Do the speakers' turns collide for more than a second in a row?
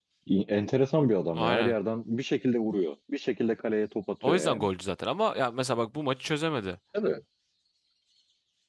No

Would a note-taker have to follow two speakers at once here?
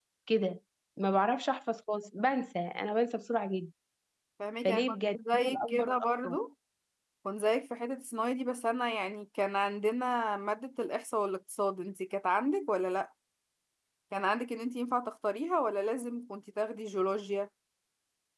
Yes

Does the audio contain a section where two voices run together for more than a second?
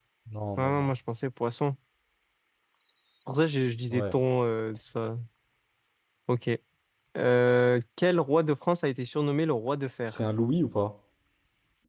No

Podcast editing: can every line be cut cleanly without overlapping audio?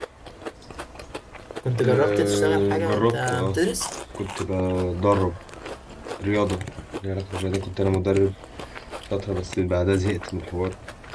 No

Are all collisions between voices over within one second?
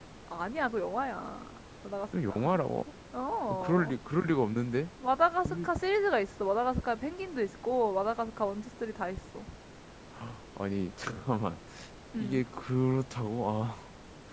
Yes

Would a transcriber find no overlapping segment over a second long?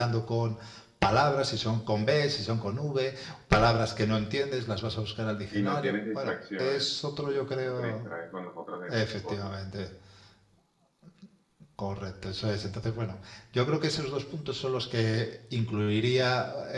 No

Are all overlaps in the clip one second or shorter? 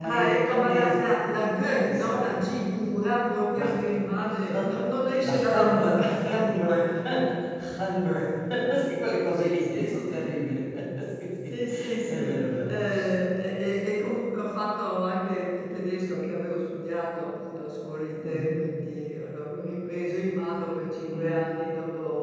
No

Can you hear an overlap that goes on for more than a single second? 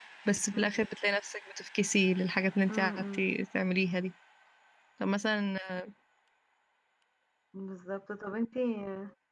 No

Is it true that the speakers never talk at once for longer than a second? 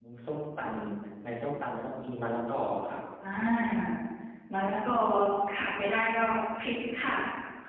Yes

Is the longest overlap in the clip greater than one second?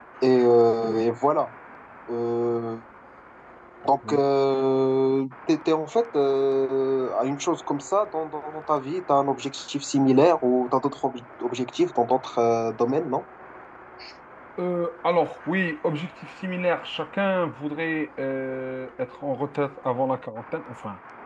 No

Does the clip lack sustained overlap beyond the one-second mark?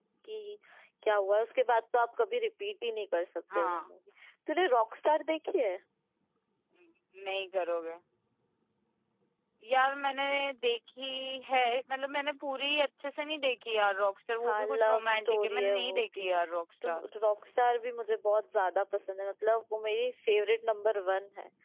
No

